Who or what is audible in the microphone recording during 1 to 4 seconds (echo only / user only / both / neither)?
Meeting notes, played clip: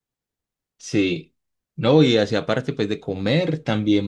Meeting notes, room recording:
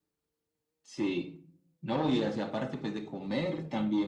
echo only